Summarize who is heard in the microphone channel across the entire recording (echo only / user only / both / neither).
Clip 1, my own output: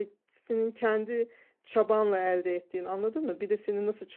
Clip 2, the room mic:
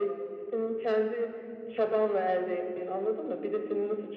echo only